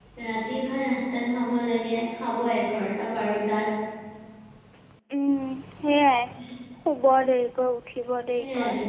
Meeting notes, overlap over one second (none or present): none